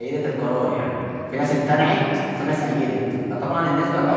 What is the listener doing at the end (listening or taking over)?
taking over